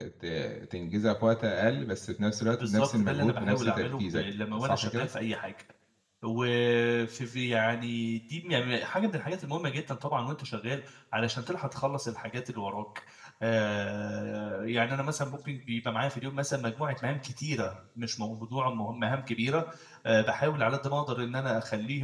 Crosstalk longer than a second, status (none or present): present